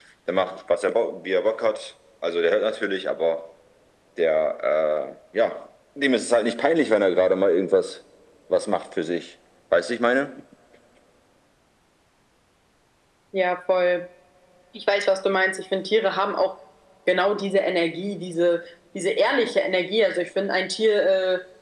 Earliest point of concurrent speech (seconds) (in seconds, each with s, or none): none